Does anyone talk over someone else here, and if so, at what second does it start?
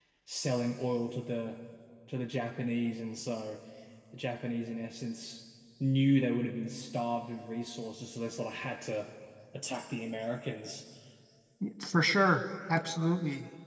none

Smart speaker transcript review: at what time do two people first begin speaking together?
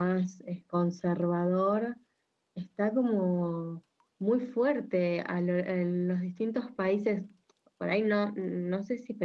none

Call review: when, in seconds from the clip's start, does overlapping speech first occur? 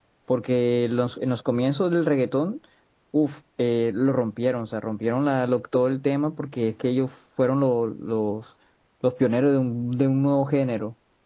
none

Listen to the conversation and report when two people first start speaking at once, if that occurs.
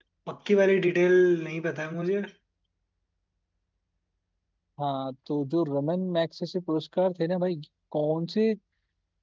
none

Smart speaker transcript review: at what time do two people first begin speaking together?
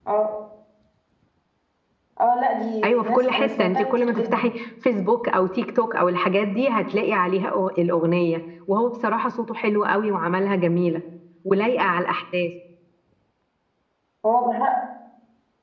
3 s

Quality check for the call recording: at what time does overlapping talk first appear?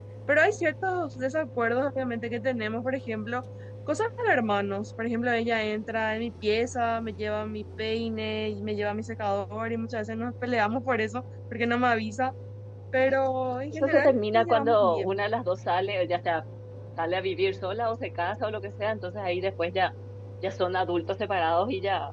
14 s

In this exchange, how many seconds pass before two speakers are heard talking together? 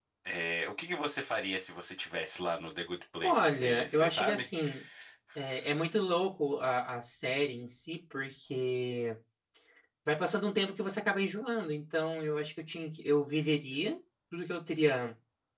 3 s

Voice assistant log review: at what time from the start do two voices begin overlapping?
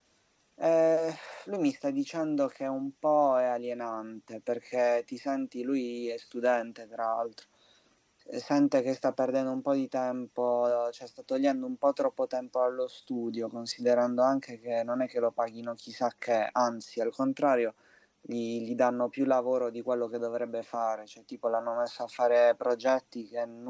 none

